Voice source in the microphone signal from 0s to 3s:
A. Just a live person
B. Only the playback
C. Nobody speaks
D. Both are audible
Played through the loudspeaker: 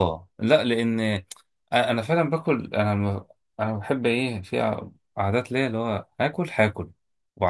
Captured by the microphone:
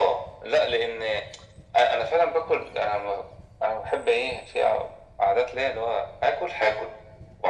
B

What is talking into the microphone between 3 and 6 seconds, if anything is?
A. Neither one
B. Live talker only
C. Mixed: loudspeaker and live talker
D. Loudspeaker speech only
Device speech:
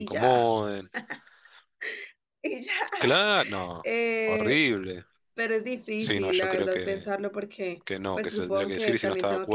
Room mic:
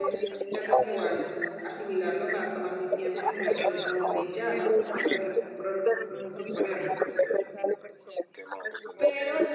C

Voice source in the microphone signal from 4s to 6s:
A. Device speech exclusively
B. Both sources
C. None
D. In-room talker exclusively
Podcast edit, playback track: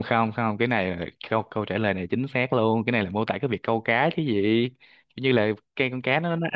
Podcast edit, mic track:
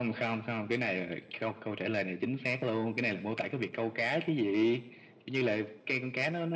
A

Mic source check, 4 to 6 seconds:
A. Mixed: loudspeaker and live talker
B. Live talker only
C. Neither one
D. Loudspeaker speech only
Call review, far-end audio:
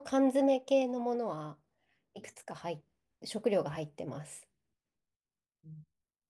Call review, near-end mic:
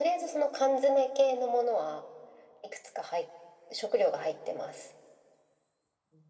D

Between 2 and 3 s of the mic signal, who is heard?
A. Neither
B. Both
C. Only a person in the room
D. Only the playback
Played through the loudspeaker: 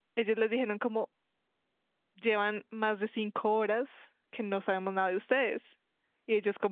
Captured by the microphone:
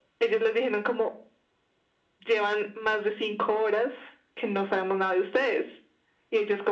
D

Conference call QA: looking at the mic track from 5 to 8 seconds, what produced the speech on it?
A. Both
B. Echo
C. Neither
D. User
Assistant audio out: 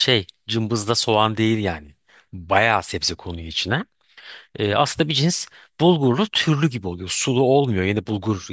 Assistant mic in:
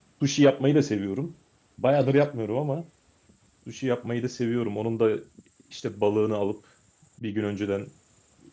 D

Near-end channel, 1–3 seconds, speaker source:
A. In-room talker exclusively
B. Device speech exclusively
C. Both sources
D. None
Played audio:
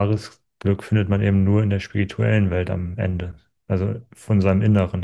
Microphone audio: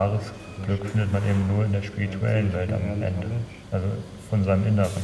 C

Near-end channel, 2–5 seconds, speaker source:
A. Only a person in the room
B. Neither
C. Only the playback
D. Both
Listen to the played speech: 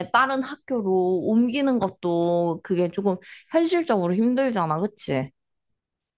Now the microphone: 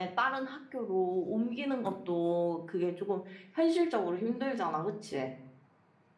C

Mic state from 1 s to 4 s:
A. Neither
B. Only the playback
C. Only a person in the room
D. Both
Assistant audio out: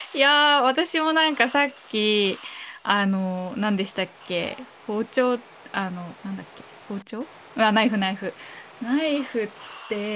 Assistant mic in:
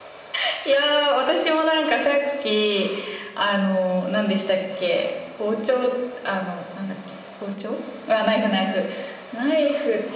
B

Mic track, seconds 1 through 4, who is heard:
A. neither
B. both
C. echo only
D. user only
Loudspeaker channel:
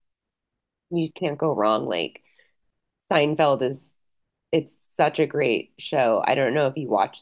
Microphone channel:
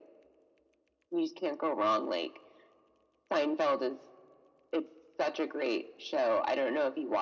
C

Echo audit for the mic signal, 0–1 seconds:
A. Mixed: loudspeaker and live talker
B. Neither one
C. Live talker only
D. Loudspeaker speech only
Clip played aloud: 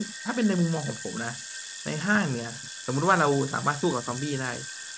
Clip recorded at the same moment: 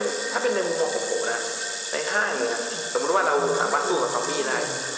D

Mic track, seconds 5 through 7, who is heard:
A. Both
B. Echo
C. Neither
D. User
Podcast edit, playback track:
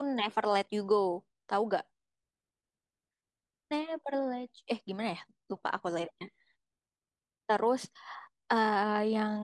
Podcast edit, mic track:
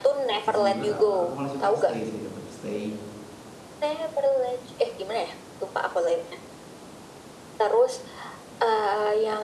B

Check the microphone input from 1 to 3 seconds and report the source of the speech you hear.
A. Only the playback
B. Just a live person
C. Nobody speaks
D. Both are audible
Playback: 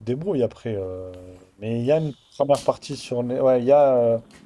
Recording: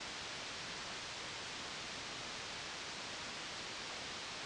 C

